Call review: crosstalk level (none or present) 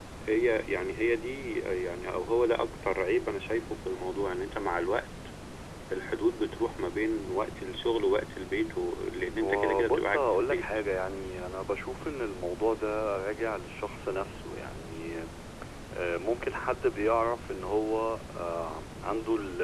present